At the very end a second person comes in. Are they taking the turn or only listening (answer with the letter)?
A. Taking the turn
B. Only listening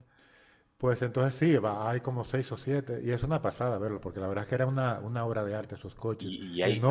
A